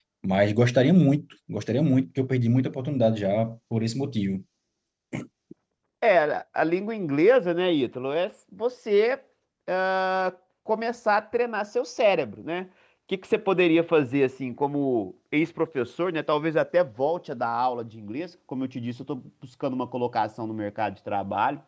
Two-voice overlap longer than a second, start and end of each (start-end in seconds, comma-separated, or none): none